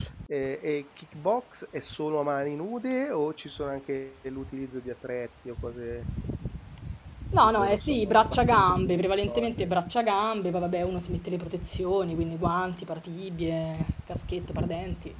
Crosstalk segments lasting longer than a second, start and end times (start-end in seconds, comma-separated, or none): 7.4-9.7